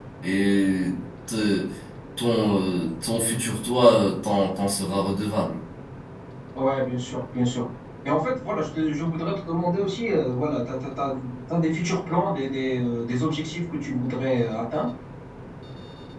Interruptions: none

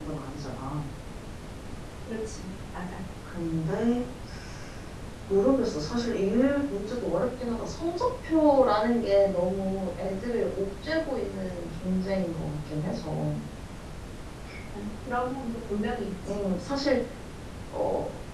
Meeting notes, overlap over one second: none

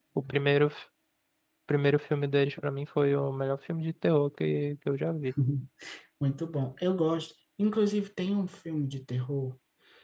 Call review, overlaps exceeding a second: none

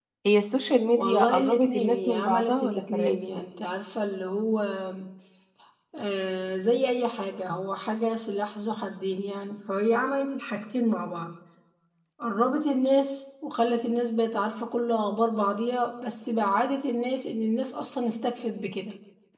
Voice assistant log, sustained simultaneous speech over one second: present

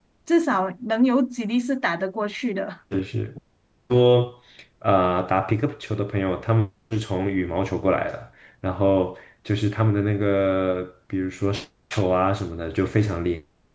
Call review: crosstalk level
none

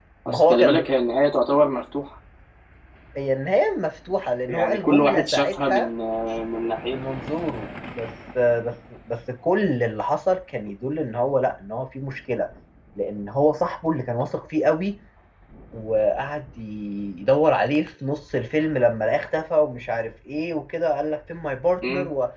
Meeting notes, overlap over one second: present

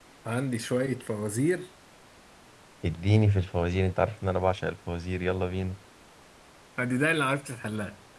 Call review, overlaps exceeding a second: none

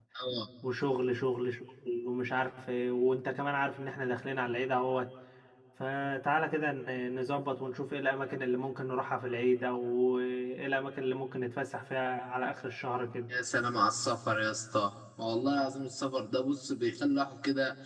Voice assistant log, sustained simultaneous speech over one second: none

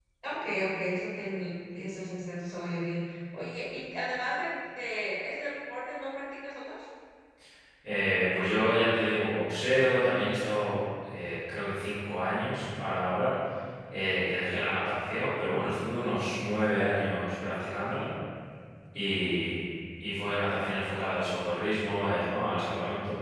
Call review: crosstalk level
none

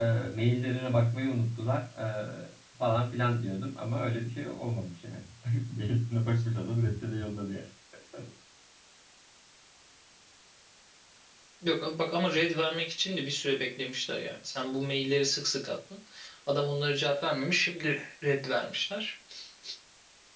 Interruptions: none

